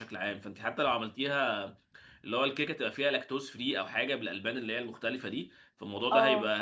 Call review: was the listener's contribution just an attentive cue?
Yes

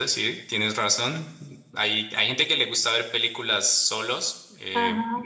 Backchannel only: Yes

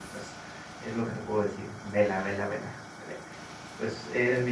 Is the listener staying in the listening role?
Yes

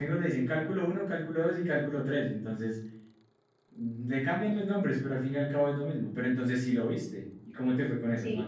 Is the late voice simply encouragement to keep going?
No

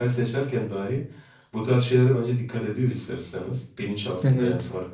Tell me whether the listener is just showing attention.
Yes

